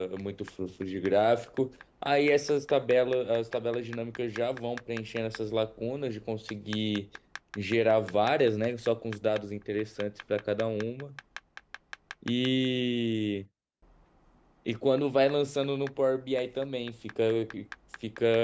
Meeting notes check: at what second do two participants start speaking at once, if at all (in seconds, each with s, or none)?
none